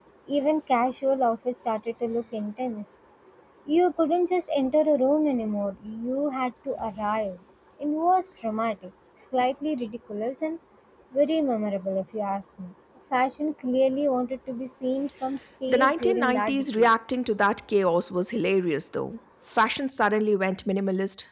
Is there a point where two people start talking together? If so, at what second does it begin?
15.7 s

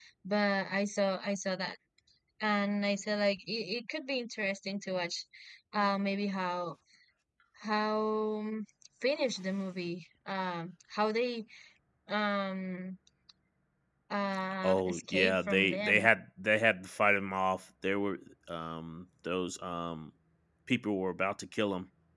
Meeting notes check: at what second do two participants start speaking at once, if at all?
14.6 s

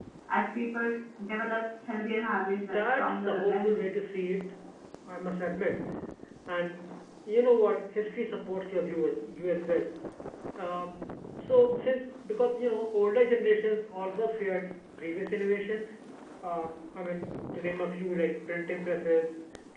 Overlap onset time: 2.6 s

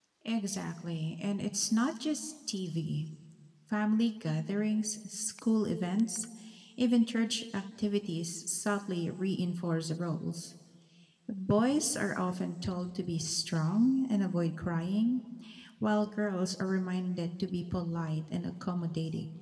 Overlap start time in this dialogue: none

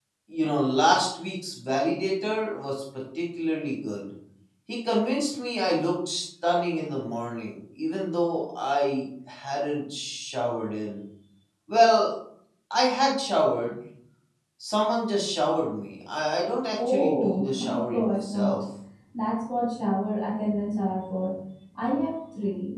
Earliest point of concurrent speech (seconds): 16.8 s

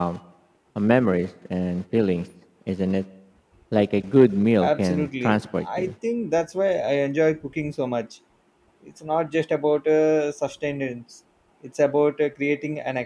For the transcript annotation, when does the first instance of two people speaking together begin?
4.6 s

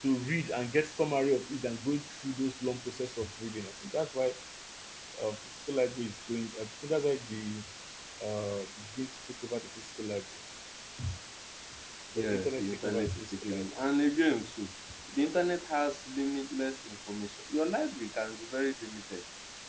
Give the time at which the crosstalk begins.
12.2 s

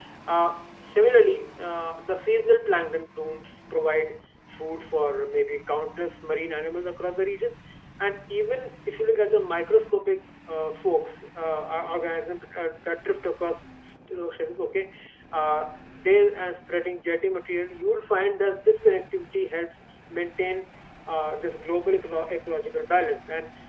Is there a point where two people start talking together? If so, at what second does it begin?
none

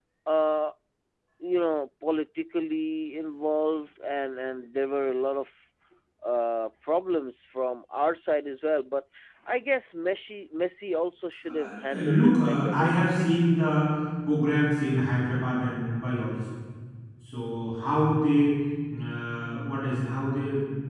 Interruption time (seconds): 11.4 s

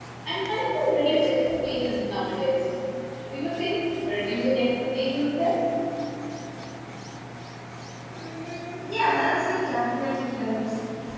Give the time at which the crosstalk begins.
none

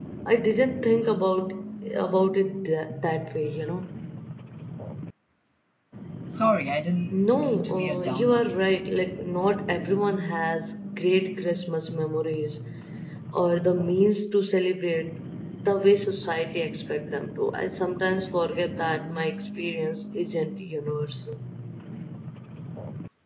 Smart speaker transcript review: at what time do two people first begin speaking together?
7.1 s

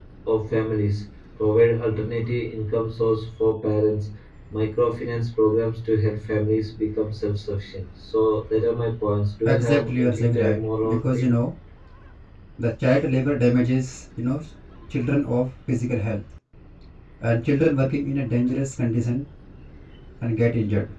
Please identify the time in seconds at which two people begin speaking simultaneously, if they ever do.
9.4 s

